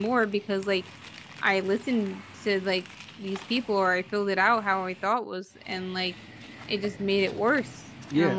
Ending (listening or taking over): taking over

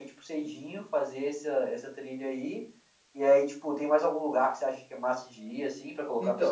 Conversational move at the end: taking over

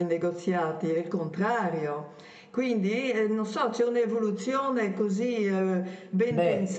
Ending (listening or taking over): listening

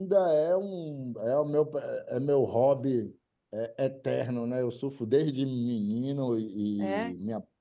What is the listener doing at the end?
listening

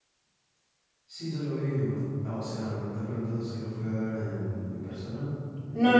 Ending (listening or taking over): taking over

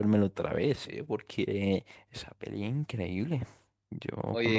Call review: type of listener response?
taking over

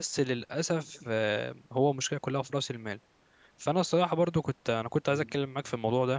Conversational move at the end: listening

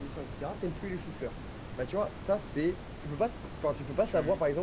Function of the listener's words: listening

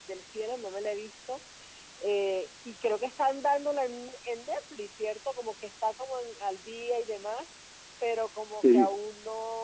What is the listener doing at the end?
listening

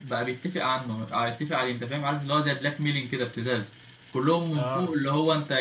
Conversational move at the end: listening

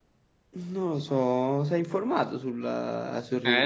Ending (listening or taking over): taking over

